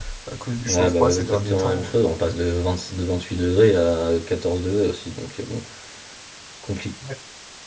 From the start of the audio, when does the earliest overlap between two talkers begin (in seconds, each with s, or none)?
0.7 s